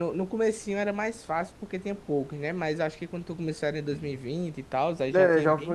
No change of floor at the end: No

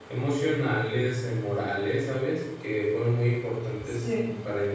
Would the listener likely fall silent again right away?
Yes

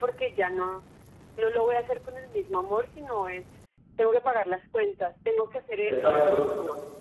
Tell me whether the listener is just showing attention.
Yes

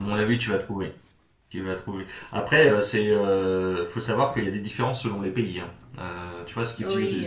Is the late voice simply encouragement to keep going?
Yes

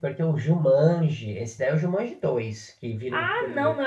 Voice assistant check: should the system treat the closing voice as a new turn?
Yes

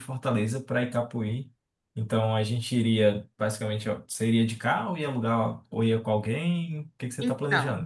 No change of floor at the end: No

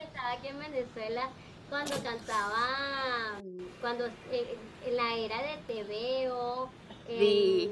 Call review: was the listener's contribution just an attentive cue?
Yes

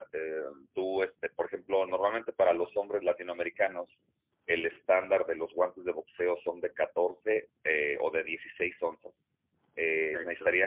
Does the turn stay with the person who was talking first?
Yes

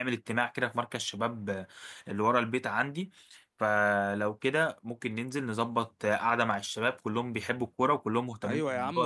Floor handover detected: Yes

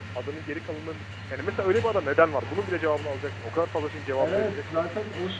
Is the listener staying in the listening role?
No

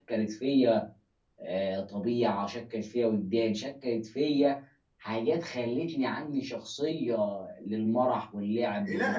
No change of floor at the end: No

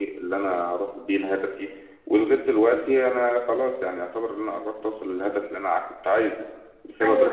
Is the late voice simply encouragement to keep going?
Yes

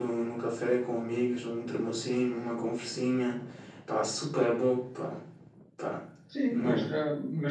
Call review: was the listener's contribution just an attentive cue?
No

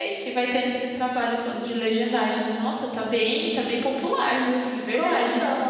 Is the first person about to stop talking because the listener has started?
Yes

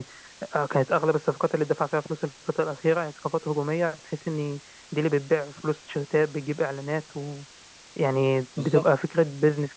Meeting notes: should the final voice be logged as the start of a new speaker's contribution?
No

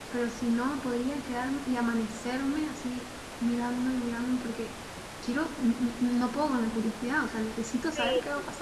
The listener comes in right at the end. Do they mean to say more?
Yes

